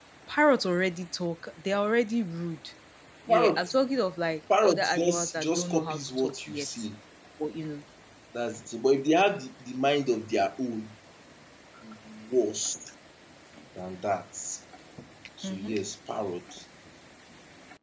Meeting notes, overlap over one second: present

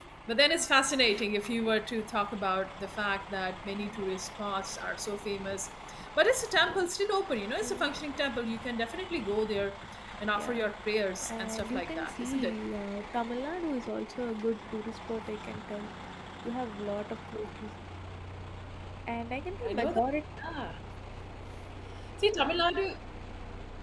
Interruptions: present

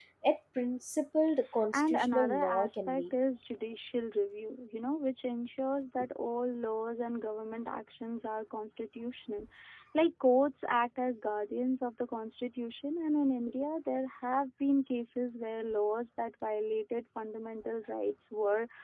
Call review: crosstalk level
present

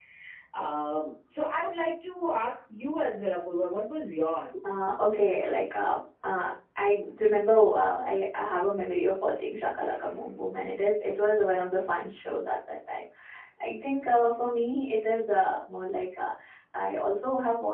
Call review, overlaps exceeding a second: none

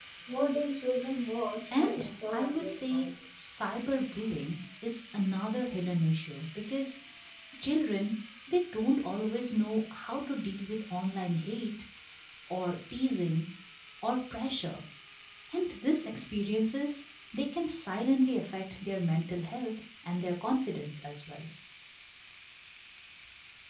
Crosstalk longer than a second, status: present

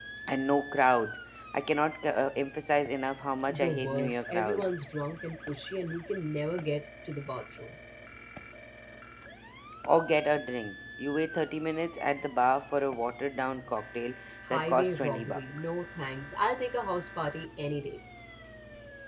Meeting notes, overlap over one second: present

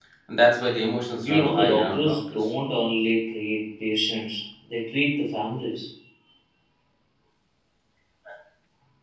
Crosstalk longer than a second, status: present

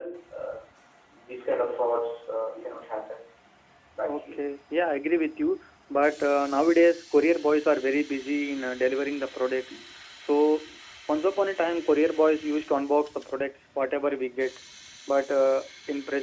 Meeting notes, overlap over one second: none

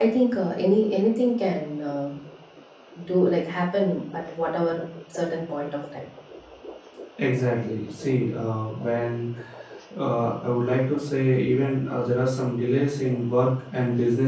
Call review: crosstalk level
none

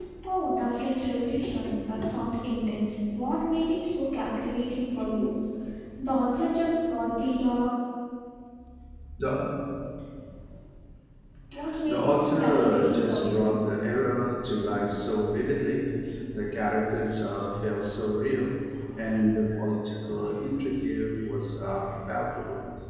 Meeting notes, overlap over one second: present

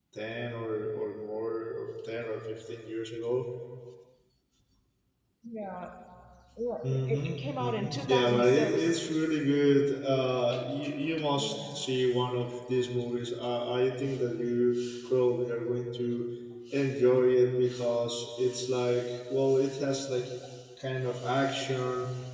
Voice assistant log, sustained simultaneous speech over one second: present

